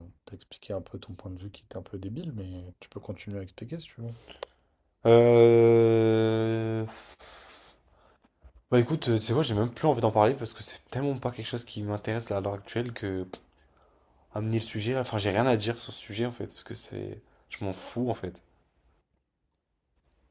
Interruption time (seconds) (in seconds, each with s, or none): none